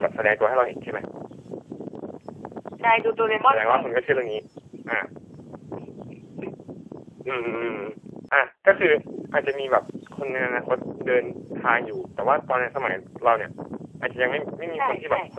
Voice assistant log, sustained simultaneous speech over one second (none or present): none